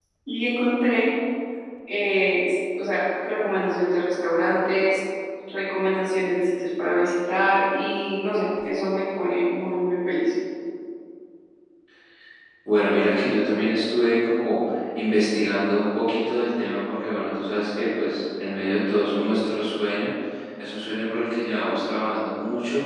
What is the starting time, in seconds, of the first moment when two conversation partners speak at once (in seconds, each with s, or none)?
none